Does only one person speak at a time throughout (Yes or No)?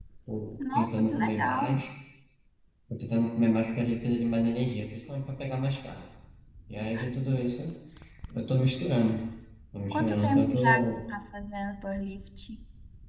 No